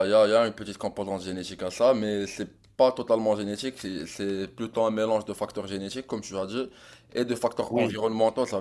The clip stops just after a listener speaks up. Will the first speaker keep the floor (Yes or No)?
Yes